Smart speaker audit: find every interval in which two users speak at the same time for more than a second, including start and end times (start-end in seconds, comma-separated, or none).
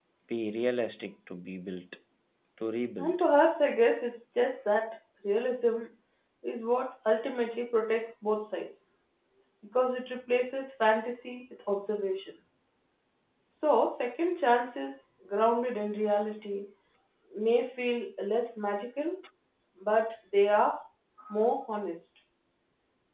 none